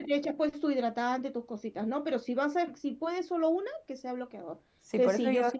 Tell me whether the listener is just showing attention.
No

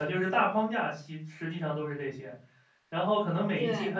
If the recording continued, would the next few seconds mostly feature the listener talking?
No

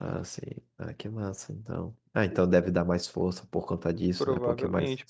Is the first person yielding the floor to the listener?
Yes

